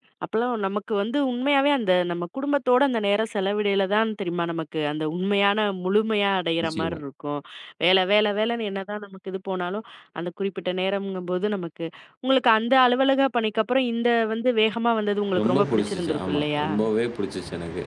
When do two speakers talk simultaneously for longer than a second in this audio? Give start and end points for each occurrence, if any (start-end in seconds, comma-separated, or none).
15.4-16.7